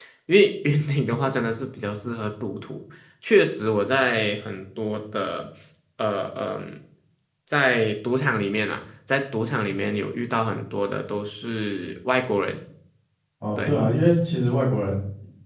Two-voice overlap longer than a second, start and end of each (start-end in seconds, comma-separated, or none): none